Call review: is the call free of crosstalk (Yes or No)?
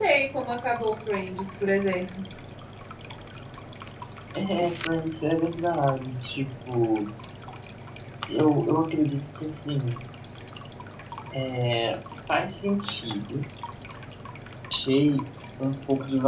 Yes